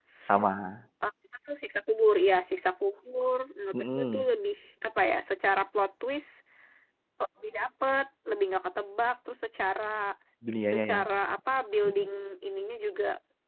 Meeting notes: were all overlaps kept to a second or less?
Yes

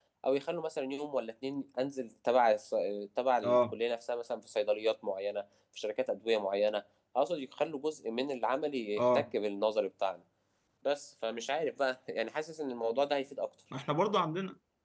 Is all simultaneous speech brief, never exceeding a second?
Yes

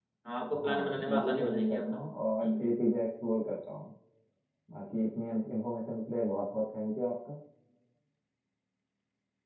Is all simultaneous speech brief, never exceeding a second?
No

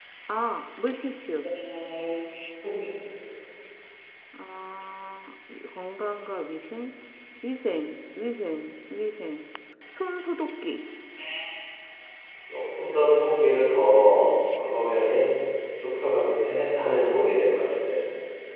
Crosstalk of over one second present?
No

